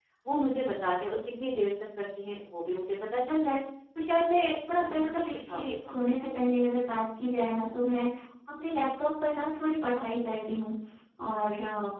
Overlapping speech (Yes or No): Yes